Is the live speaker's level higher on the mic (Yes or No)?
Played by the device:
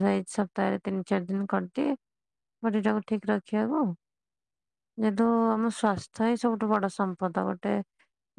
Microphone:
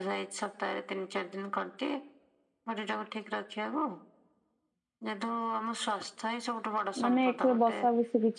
Yes